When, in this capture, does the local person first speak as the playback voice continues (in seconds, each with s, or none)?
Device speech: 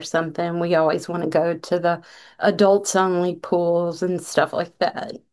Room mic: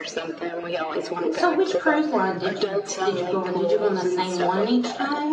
1.3 s